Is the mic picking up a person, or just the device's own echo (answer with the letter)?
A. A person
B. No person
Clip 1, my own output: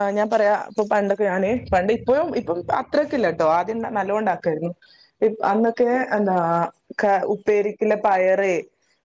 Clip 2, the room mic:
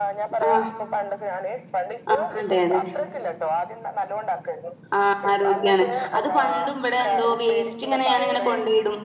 A